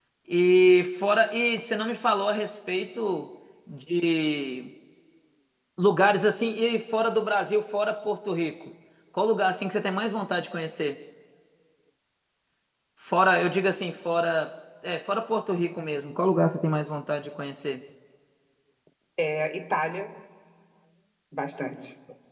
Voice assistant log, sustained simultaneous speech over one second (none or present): none